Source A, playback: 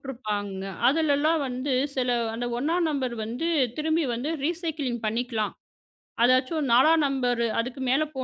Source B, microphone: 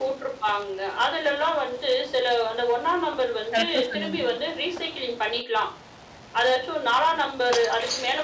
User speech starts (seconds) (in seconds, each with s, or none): 3.5 s